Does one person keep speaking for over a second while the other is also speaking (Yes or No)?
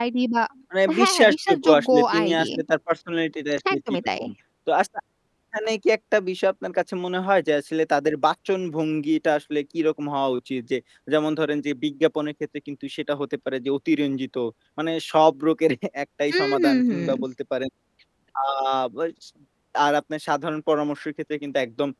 Yes